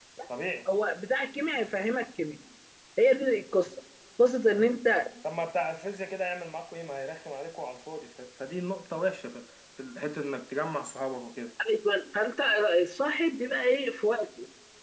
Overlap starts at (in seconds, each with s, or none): none